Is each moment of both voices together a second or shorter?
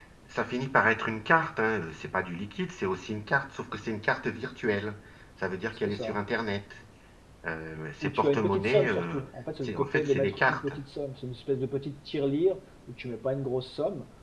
No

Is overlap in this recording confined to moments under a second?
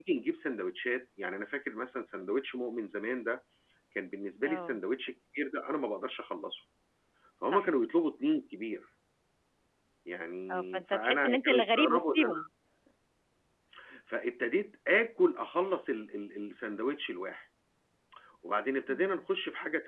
No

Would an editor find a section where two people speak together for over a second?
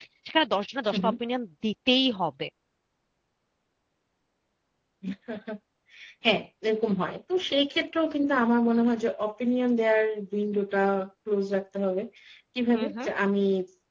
No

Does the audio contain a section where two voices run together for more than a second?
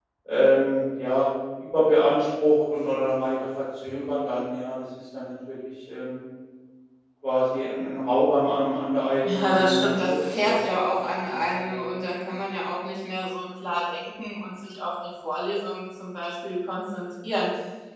Yes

